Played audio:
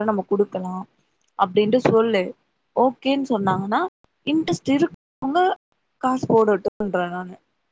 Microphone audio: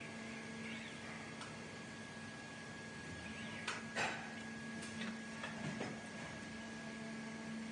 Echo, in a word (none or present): none